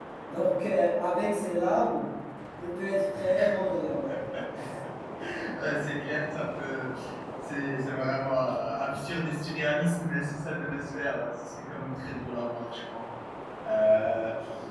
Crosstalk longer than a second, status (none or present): none